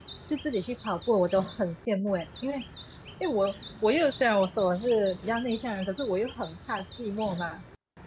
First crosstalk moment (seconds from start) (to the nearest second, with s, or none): none